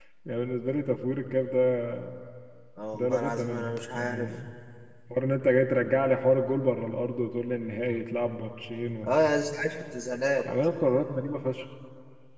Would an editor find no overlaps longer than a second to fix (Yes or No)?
No